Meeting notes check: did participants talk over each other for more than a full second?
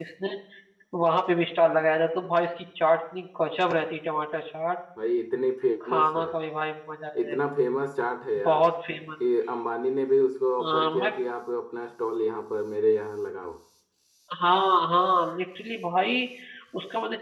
No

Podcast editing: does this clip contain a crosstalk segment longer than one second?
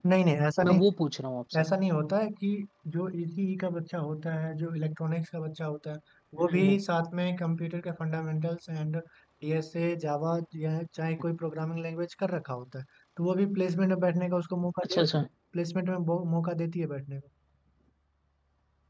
No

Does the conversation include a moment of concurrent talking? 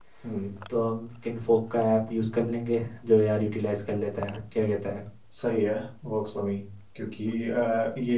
No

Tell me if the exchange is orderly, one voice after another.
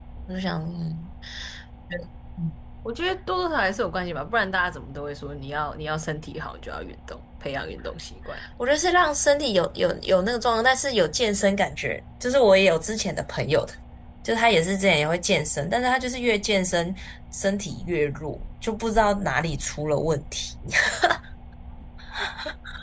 Yes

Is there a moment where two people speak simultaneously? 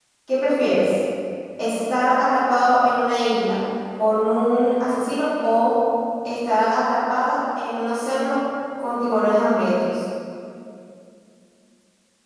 No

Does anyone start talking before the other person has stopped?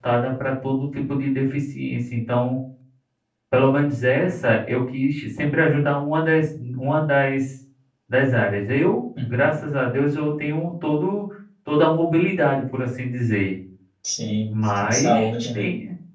Yes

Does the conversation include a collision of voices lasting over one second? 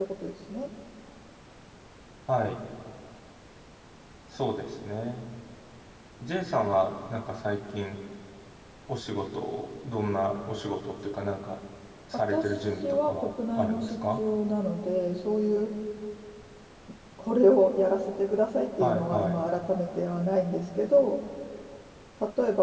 Yes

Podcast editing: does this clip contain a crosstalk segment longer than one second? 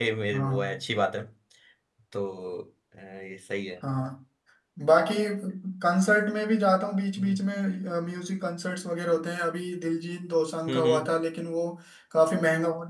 No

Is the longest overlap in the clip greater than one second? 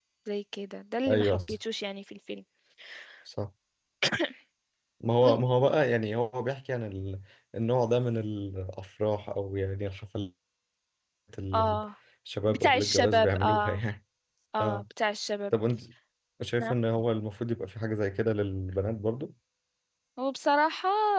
Yes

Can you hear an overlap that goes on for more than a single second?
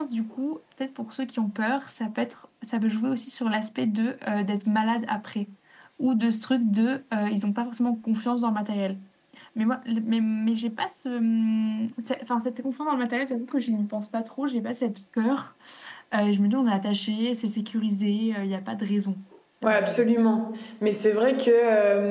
No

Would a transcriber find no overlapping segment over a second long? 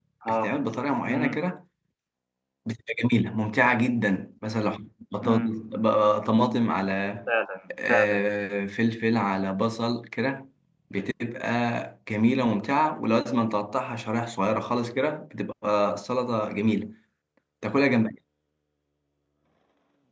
Yes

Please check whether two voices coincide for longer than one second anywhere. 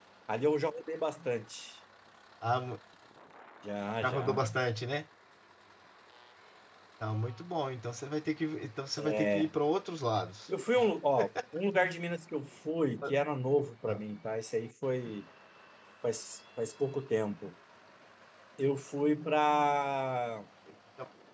No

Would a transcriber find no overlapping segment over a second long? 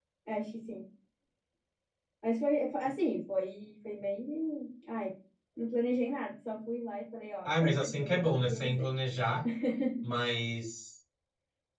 No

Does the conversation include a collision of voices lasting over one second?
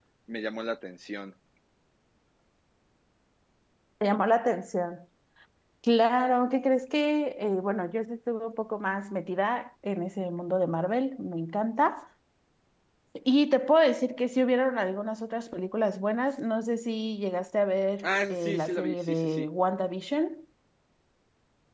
Yes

